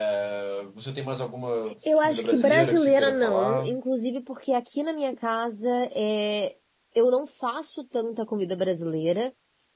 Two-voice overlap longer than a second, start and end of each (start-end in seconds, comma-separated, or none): 2.0-3.7